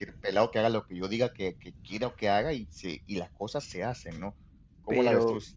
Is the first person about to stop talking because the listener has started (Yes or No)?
Yes